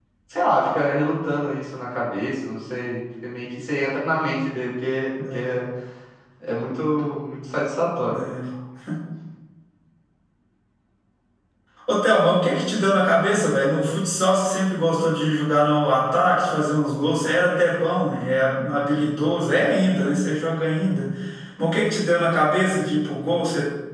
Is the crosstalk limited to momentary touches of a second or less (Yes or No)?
Yes